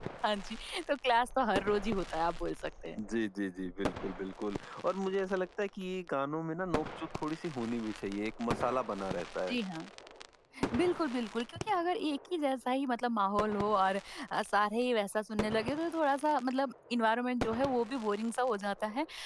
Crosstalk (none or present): none